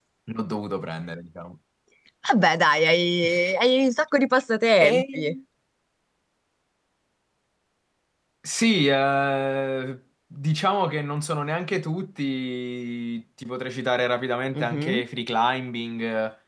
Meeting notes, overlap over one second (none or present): none